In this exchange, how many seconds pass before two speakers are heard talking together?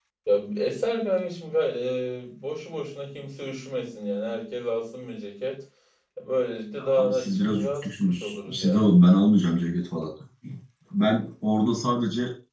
7 s

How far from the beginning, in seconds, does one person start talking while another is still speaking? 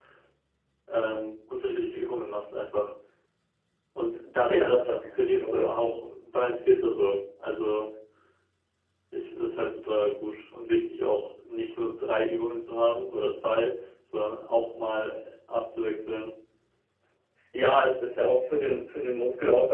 4 s

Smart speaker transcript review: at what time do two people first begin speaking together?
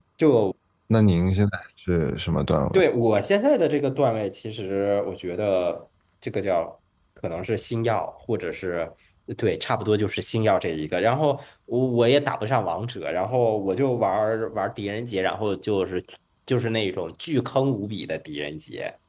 none

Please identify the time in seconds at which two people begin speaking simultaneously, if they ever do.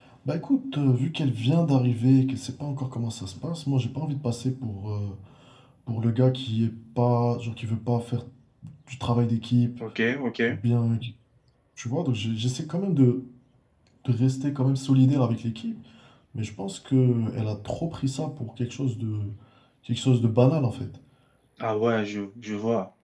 none

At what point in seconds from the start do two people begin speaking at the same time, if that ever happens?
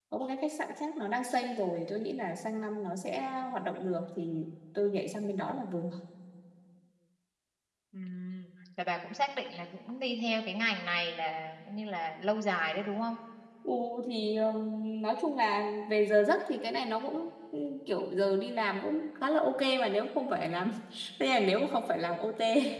none

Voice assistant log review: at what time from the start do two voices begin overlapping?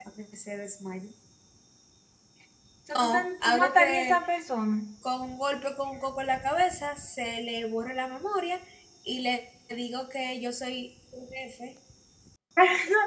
3 s

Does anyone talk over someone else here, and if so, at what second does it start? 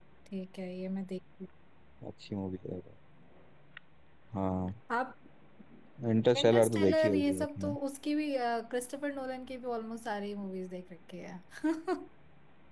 6 s

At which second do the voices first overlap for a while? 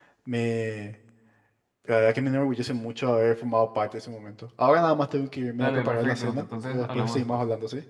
6 s

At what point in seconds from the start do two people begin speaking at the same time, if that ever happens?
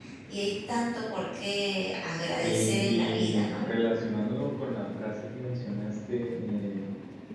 2 s

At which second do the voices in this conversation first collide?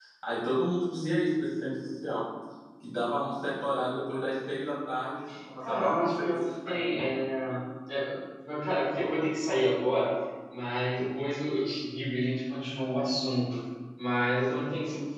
6 s

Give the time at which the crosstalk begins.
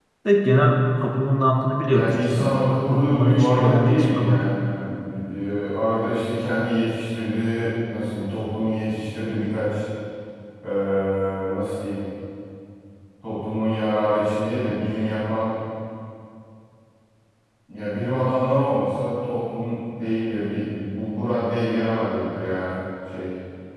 2 s

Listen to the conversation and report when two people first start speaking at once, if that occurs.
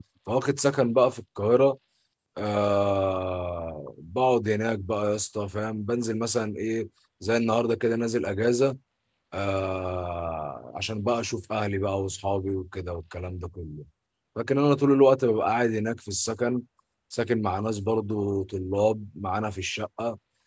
none

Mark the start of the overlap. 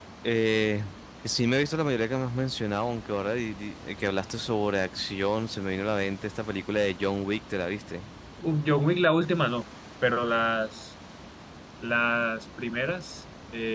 none

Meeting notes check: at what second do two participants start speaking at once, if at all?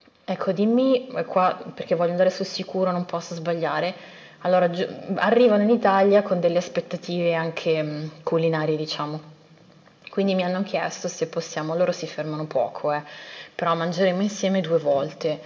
none

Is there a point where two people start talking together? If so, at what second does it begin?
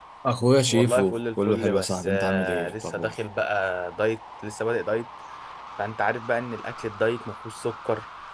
1 s

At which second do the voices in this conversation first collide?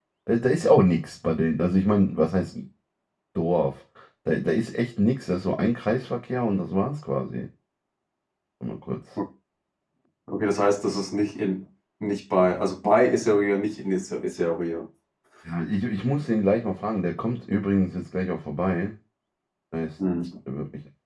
none

